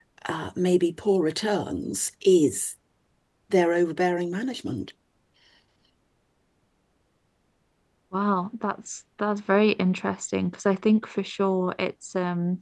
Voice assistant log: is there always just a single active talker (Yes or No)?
Yes